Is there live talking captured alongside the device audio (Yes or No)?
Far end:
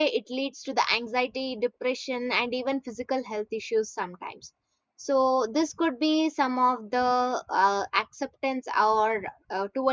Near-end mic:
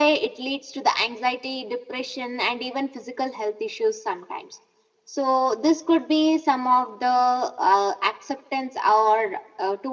No